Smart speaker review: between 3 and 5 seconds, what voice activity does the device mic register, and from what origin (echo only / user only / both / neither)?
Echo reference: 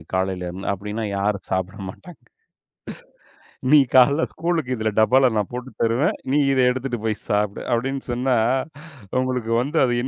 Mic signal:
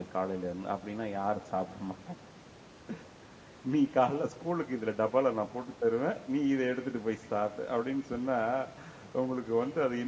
echo only